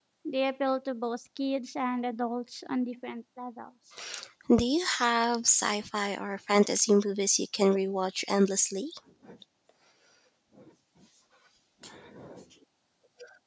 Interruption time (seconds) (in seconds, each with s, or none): none